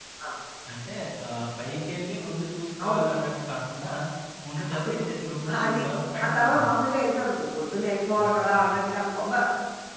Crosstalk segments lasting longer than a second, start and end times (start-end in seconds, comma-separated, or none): none